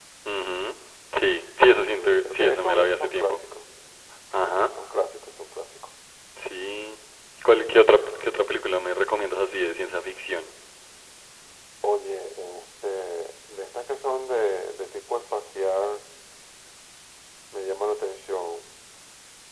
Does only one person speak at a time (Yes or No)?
No